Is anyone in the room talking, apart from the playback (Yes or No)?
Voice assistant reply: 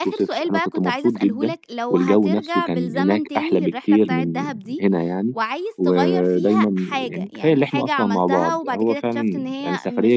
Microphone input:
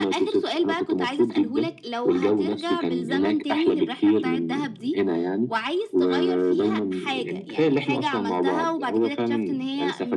No